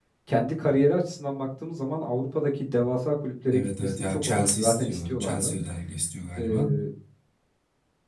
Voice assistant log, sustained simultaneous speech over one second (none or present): present